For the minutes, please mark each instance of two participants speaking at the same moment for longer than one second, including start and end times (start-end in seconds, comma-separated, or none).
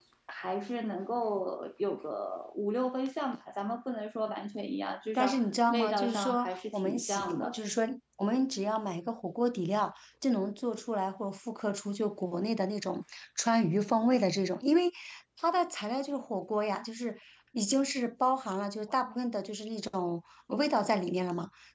5.1-7.6